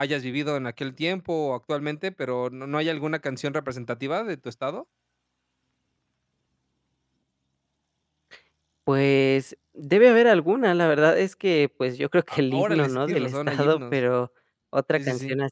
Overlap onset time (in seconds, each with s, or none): 12.5 s